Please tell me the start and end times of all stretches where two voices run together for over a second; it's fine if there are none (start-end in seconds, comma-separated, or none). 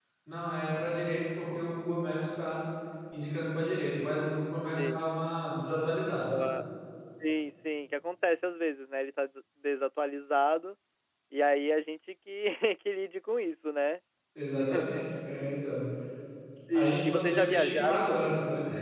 16.7-18.2